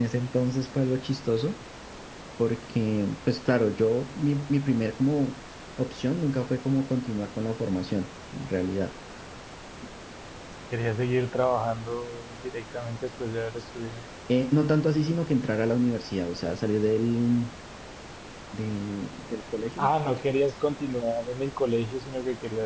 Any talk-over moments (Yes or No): No